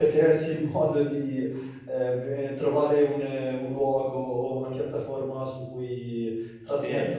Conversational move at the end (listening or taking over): taking over